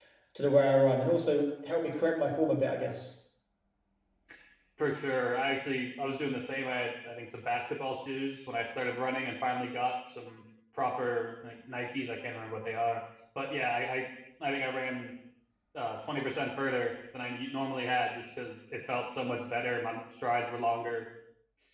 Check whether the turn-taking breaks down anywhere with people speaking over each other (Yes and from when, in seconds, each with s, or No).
No